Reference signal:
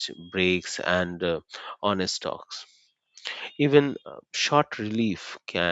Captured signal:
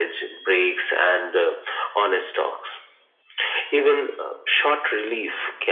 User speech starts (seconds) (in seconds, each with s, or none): none